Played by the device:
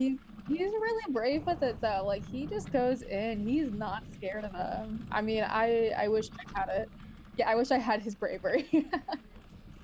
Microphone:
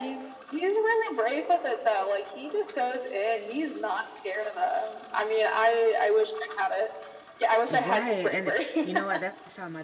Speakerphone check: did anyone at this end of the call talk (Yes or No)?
Yes